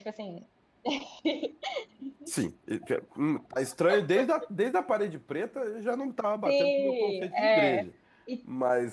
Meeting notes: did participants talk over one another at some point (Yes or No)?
Yes